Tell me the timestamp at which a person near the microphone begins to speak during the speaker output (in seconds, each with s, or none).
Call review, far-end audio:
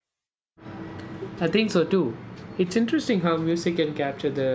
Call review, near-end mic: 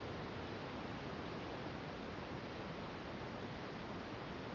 none